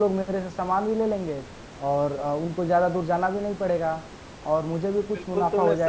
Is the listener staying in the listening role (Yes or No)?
No